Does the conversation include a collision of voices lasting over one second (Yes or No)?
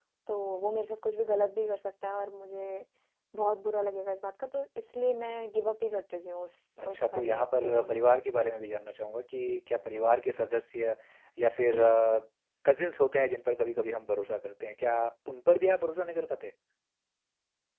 Yes